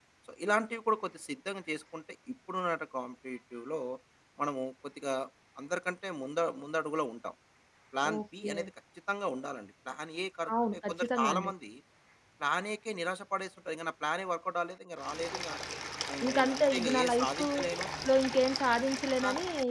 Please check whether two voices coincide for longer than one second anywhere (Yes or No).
Yes